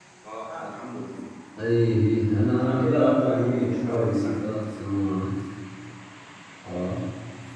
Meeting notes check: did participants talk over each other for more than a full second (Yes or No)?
Yes